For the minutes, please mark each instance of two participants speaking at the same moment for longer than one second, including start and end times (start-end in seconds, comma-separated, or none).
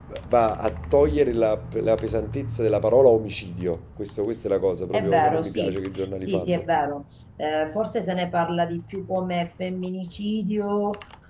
4.9-6.6